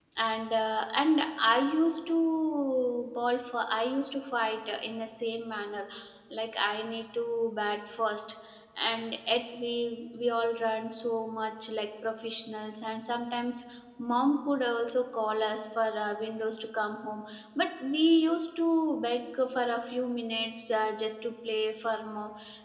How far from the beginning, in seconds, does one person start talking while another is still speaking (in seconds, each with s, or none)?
none